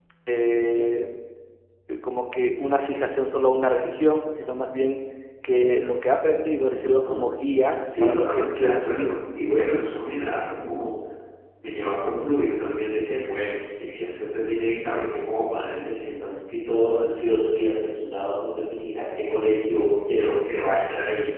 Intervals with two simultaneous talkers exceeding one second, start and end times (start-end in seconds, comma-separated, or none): 7.8-9.2